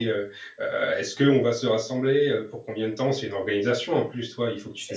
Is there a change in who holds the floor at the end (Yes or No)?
No